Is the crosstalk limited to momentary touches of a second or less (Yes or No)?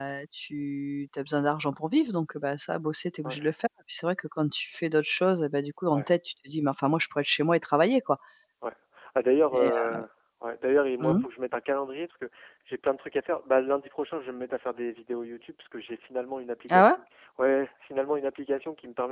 Yes